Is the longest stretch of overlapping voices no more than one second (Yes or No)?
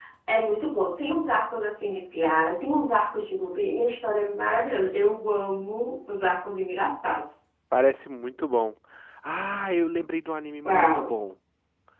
Yes